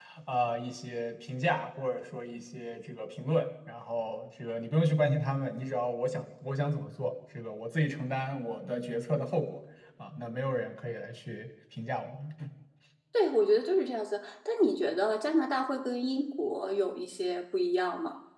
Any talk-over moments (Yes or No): No